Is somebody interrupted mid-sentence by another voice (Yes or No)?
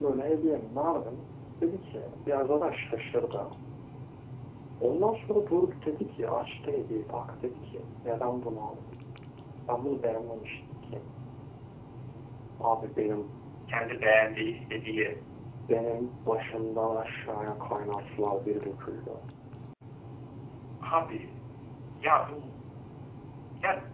No